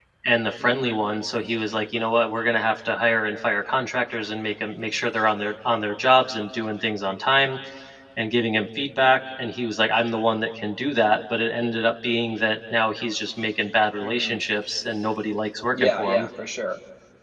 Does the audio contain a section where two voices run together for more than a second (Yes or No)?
No